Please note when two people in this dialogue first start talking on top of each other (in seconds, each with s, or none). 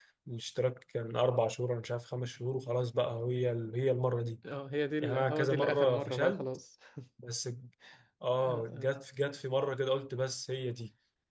5.0 s